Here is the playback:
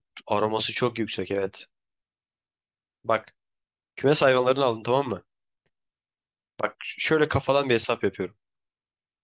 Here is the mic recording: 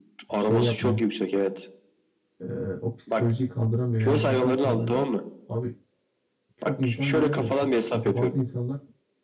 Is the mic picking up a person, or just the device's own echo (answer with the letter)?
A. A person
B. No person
A